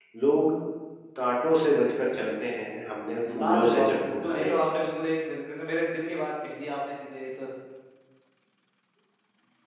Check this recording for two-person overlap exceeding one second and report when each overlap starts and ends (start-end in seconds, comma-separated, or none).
3.4-4.7